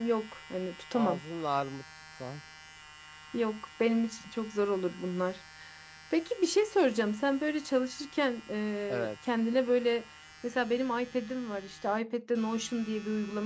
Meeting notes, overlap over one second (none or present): none